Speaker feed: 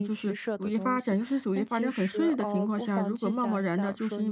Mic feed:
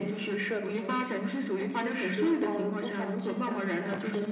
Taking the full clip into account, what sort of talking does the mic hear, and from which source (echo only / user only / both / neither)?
echo only